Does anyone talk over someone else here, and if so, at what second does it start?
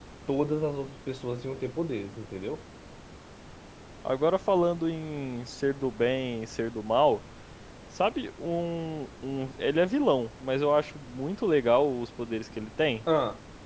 none

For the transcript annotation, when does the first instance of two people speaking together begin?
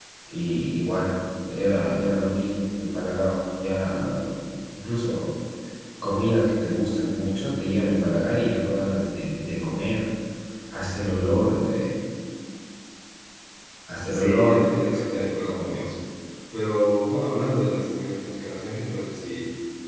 14.1 s

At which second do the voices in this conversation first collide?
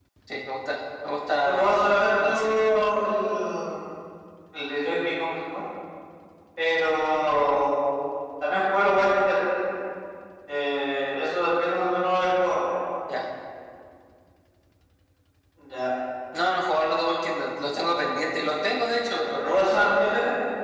1.4 s

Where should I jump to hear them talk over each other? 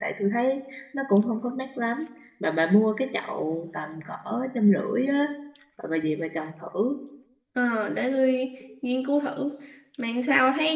none

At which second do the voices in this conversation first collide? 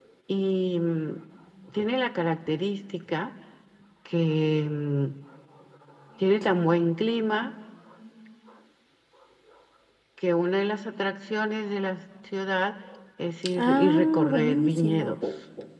13.6 s

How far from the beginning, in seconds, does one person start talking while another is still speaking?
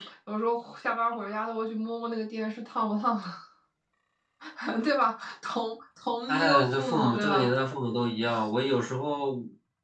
6.3 s

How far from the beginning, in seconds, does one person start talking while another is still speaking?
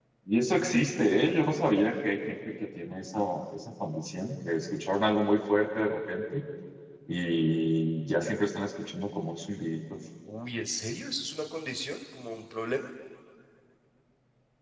none

